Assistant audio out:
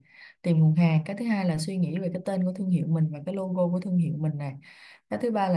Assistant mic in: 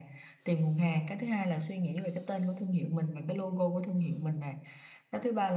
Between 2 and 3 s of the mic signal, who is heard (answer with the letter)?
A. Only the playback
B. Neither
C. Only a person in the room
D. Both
A